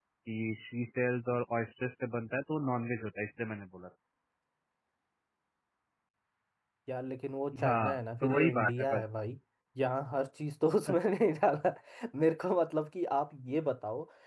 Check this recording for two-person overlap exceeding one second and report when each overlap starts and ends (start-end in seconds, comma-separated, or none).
7.7-9.0